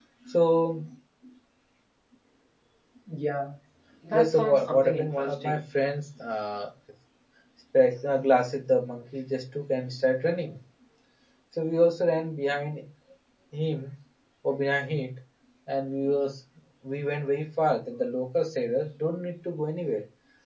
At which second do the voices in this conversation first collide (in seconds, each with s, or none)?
4.1 s